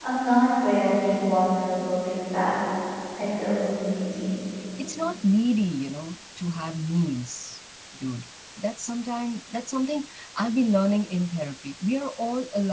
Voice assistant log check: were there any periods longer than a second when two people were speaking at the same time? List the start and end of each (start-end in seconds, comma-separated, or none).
none